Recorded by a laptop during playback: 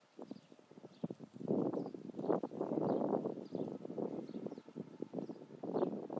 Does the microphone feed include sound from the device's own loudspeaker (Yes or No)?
No